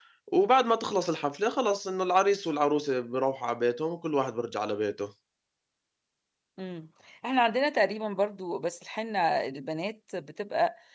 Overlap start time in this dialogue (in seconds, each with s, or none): none